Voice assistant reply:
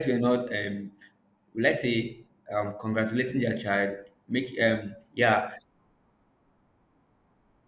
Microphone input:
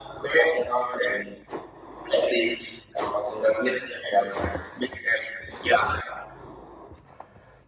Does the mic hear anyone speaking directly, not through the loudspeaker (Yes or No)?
No